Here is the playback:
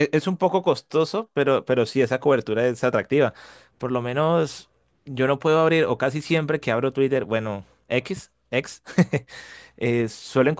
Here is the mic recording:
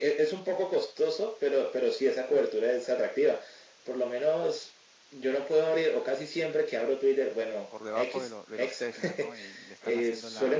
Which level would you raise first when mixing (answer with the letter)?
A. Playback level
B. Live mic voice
B